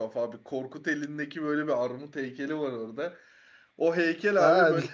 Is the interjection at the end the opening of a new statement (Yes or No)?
No